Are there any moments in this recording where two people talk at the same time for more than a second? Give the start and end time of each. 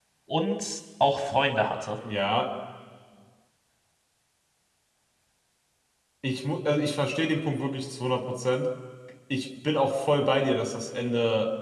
none

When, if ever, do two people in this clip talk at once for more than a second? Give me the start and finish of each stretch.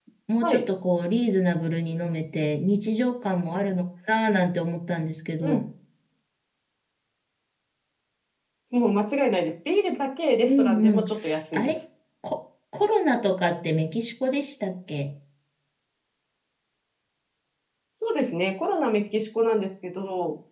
none

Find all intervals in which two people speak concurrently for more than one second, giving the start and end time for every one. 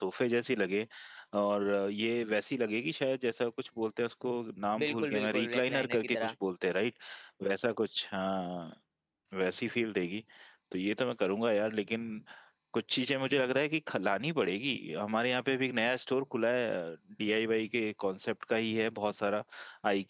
4.8-6.3

